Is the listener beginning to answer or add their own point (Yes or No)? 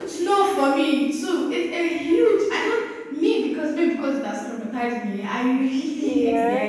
No